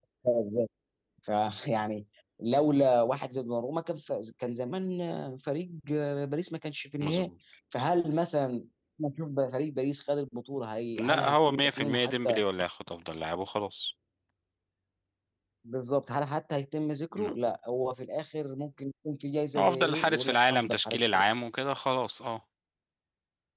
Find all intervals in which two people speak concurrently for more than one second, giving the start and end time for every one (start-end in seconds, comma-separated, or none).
11.0-12.4, 19.6-21.2